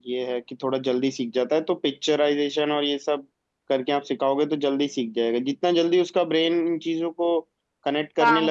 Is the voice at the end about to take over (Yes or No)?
No